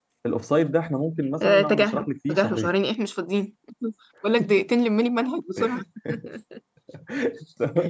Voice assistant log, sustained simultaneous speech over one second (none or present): present